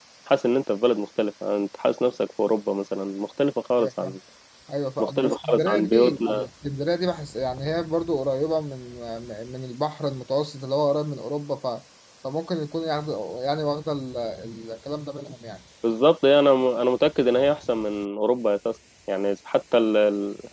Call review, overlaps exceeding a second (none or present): present